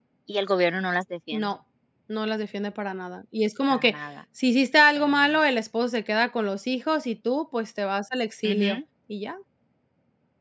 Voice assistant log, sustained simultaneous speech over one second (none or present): none